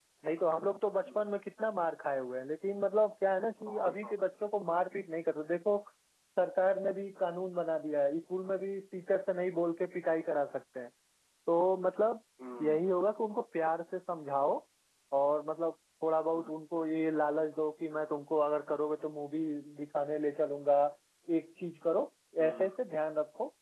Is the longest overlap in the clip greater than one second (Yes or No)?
No